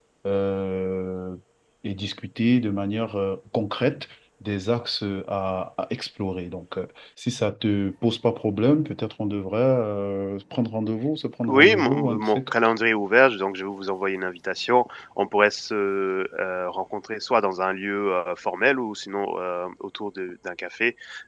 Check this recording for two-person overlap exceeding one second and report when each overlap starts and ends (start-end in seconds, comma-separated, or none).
11.5-12.7